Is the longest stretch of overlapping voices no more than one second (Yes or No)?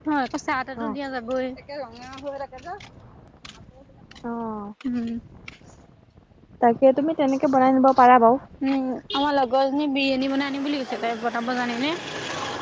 Yes